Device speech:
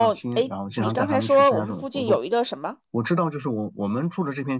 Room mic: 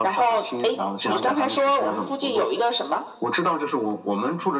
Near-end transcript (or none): none